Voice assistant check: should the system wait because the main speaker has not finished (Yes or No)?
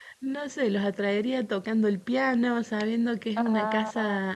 Yes